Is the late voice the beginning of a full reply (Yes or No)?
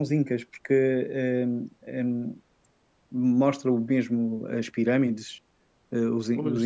No